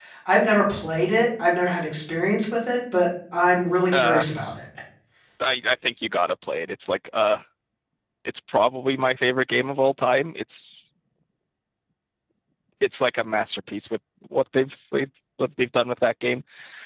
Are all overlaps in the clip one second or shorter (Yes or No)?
Yes